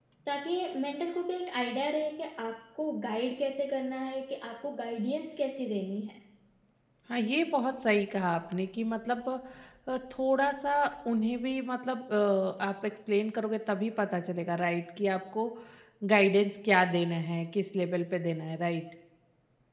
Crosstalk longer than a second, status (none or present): none